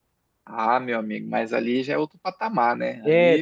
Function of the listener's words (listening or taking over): taking over